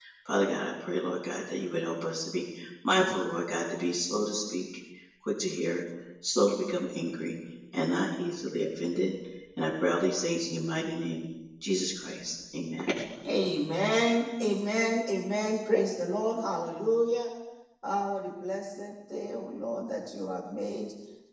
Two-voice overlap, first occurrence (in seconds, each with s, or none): none